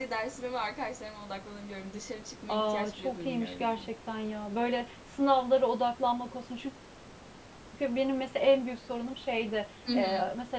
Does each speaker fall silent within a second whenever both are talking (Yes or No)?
No